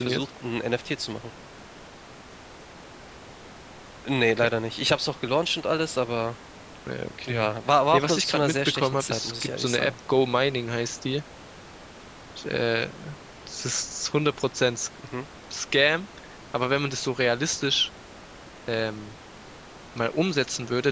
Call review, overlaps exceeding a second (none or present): present